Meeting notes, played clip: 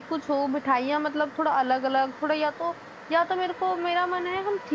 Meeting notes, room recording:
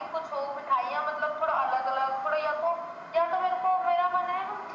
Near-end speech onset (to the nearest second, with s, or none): none